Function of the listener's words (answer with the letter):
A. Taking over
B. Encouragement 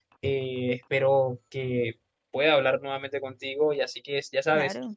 B